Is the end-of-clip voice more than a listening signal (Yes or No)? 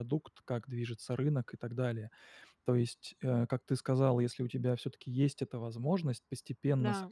No